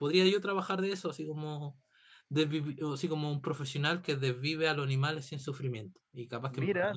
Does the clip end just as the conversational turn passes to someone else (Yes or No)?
Yes